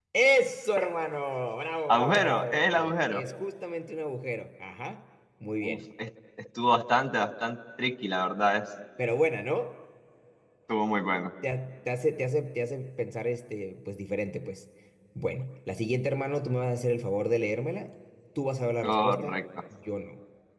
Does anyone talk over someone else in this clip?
Yes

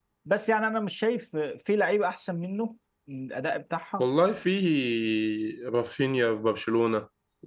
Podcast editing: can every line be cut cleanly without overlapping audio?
Yes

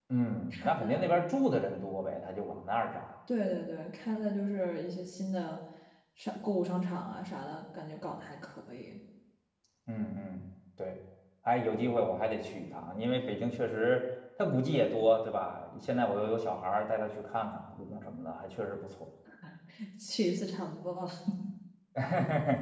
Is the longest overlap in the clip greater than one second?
No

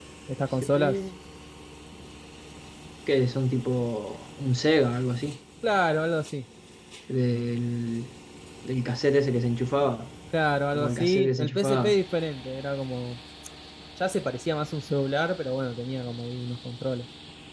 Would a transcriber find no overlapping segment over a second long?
No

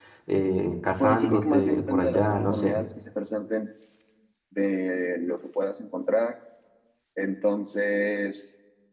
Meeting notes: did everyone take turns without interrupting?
No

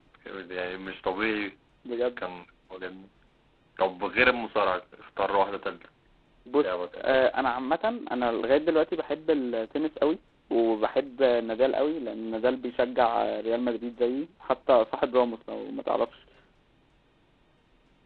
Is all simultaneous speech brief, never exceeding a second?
Yes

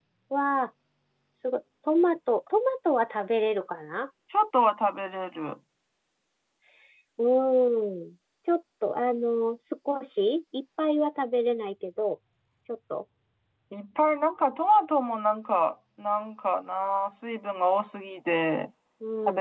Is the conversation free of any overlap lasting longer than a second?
Yes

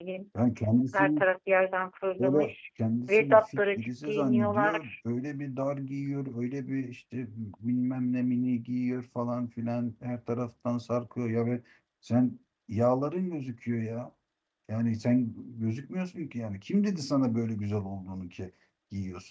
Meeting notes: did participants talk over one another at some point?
Yes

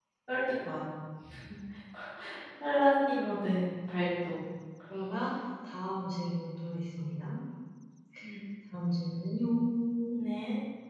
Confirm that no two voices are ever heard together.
Yes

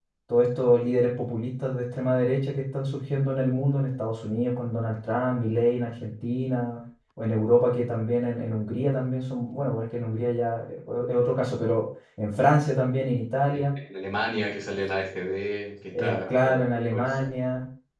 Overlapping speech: Yes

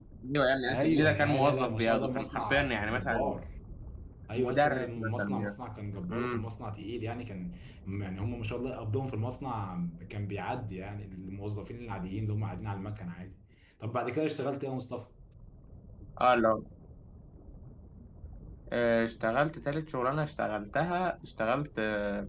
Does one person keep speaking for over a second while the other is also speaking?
Yes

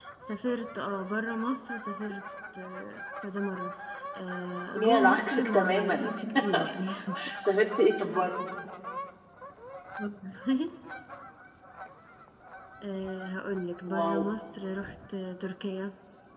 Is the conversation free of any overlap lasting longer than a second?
No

